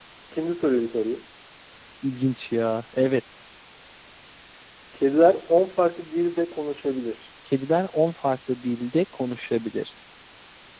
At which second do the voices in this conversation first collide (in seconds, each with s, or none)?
none